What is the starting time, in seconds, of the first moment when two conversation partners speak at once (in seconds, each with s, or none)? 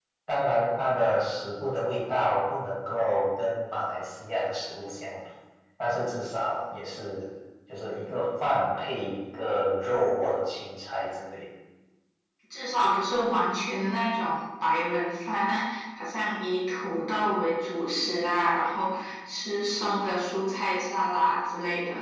none